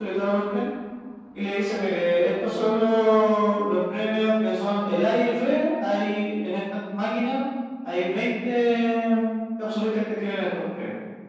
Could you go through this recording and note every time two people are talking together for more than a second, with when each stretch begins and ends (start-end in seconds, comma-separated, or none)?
none